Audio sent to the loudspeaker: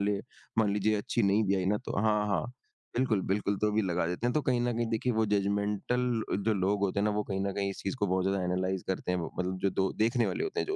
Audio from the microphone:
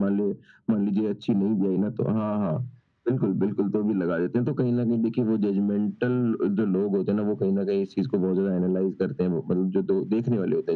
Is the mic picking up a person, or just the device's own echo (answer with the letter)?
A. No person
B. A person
A